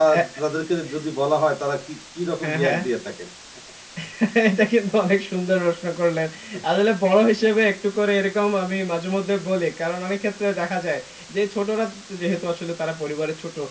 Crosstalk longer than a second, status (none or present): none